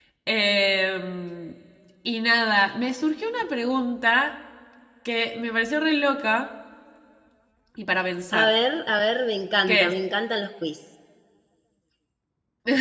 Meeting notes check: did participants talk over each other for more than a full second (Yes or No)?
No